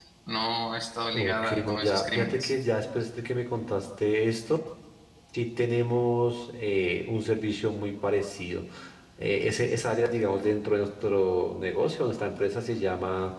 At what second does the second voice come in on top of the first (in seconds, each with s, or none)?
1.1 s